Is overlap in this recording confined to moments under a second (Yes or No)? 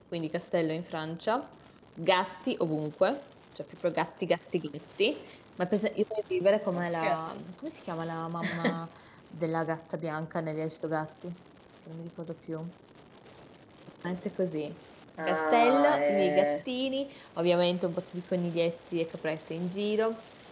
No